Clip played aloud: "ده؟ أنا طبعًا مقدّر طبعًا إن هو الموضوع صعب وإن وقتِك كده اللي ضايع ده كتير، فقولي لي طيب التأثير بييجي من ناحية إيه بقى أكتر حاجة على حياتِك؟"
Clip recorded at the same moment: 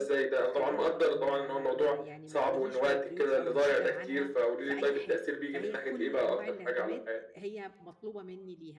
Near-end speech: present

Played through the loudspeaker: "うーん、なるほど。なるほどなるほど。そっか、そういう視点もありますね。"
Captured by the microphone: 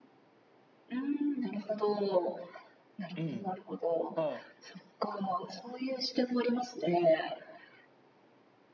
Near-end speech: present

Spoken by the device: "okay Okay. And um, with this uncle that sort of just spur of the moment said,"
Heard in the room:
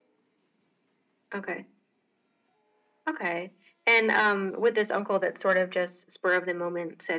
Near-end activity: none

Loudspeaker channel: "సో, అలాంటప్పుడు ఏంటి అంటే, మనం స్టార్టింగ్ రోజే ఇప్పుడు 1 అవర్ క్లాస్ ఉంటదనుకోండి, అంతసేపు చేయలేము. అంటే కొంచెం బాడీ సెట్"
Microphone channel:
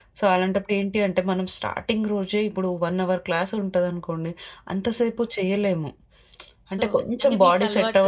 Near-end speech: present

